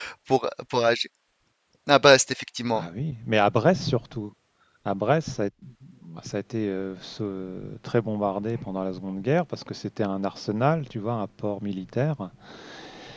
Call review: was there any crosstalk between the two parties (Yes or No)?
No